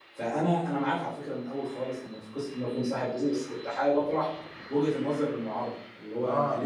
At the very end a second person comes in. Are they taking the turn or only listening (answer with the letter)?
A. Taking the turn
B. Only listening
B